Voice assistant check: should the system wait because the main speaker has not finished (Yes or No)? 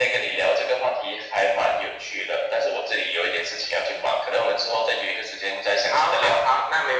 No